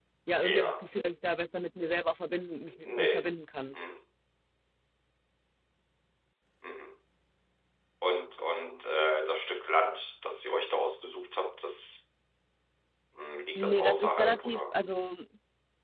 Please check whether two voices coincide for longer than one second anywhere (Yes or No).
Yes